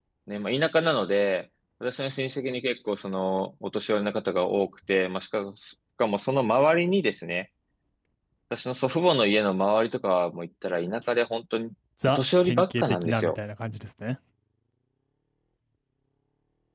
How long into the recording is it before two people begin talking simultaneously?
12.0 s

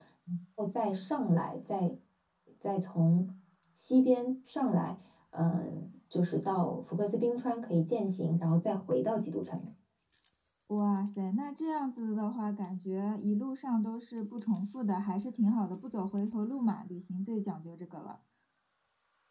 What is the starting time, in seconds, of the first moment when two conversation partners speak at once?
none

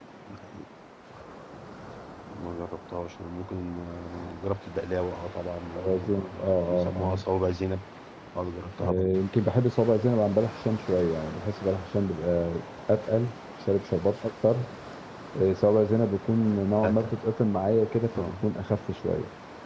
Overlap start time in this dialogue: 5.8 s

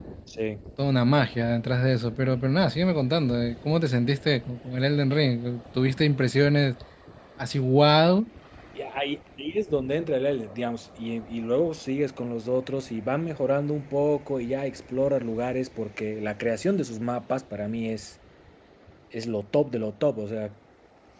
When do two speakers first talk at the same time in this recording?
none

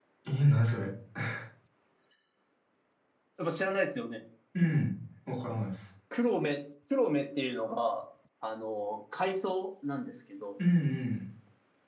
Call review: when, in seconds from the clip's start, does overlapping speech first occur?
none

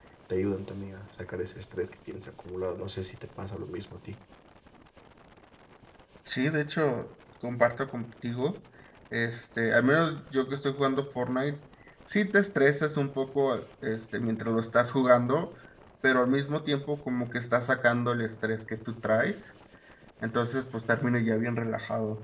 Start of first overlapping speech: none

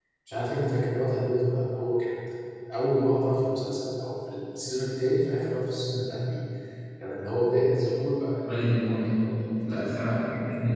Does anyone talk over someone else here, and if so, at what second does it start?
8.4 s

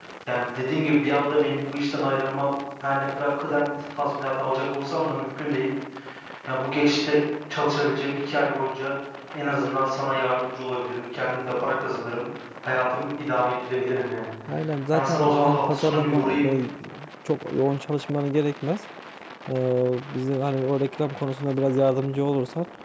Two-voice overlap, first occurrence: 14.9 s

